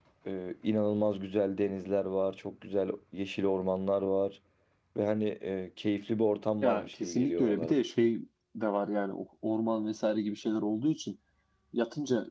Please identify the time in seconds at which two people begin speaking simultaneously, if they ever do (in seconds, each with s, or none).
6.6 s